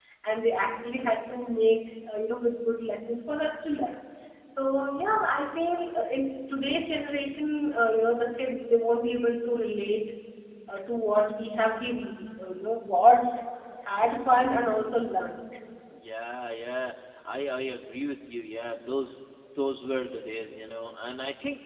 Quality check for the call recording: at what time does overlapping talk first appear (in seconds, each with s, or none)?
none